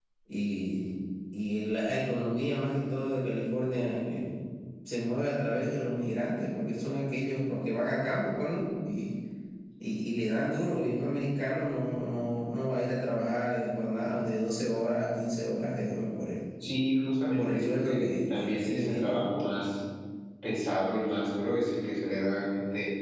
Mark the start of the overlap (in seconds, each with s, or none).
17.3 s